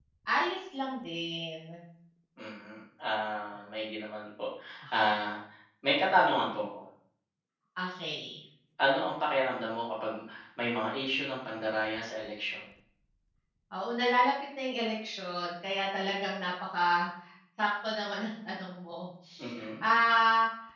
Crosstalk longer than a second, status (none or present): none